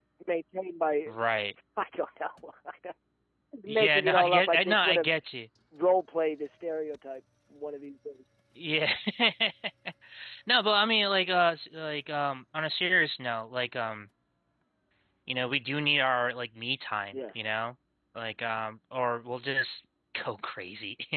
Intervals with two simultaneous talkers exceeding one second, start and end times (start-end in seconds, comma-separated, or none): 3.7-5.1